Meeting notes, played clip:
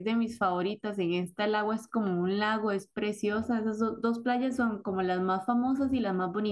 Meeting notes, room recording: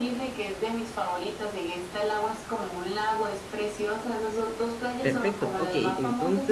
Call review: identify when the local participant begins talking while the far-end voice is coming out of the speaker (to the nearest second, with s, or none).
5 s